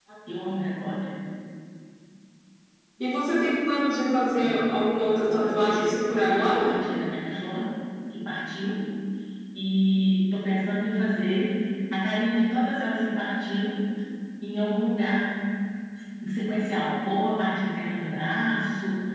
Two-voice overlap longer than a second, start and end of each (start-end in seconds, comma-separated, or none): 5.2-6.7